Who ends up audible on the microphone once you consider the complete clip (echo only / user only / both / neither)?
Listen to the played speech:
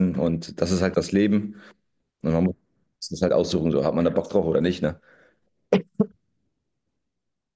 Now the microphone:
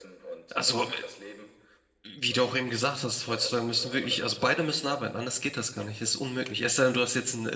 both